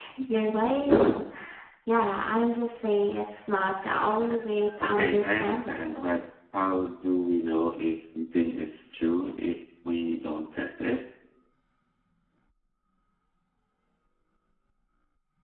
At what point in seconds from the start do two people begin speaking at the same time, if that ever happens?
4.8 s

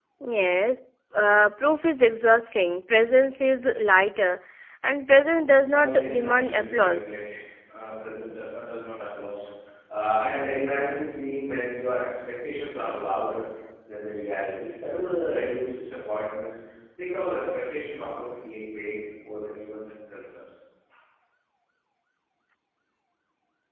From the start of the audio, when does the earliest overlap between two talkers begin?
5.7 s

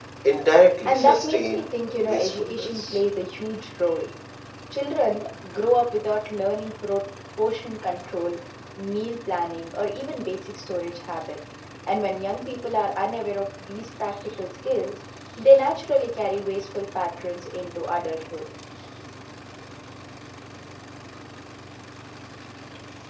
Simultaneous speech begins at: 0.8 s

